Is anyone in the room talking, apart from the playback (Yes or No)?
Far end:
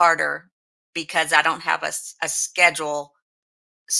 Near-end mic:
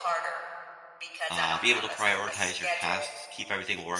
Yes